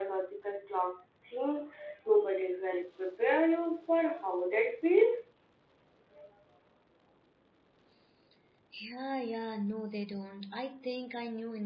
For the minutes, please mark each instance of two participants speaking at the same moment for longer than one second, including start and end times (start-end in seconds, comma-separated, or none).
none